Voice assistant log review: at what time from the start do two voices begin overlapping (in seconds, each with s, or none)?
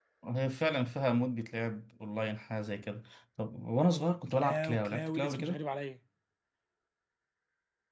4.3 s